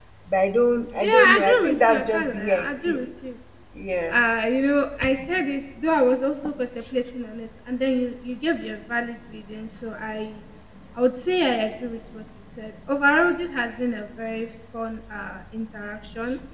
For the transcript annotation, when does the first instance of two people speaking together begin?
1.0 s

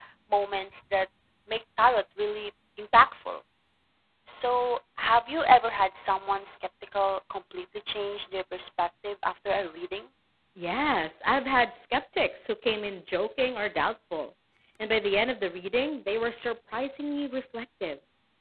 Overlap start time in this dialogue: none

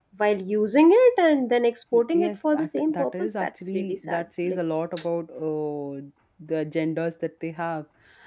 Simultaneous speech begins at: 1.9 s

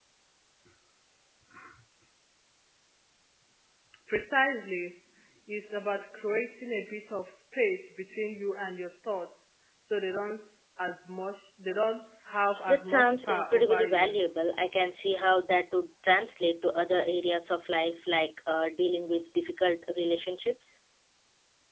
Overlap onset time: 12.7 s

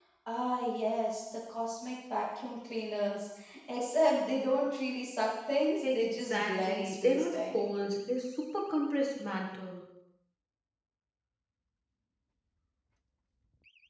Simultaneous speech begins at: 5.8 s

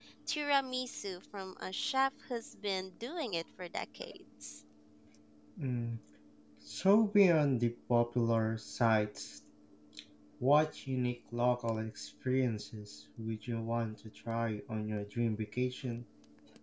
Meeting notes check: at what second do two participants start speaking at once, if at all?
none

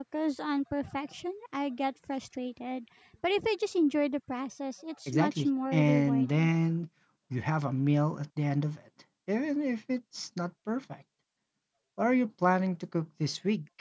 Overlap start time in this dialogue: 5.1 s

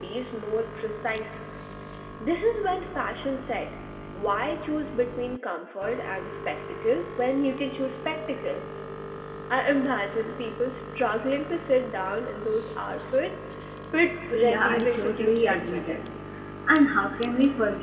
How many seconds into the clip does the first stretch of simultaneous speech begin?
14.3 s

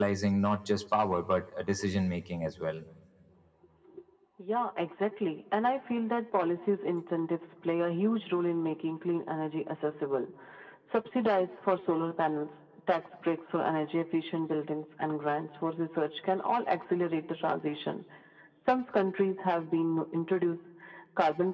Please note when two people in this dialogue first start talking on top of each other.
none

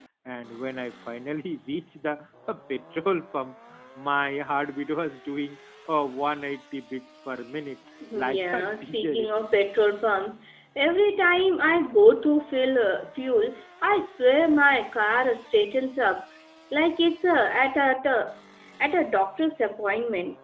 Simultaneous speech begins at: 8.0 s

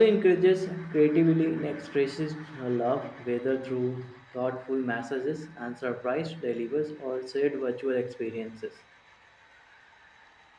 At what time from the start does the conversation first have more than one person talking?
none

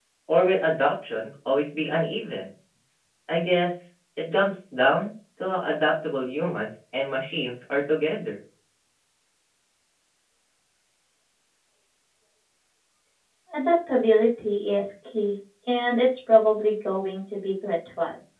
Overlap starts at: none

